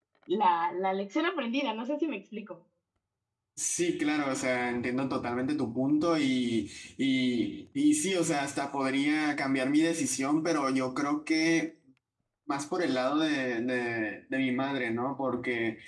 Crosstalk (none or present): none